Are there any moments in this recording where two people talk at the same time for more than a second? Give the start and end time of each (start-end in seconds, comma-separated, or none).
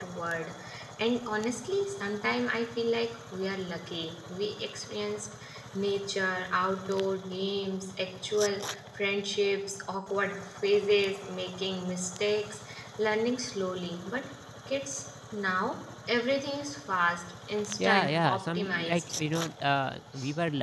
17.8-19.0